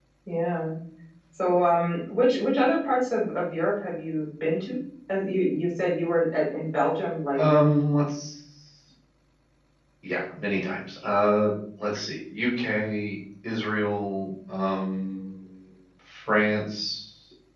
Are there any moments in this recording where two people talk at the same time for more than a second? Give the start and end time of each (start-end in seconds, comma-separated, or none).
none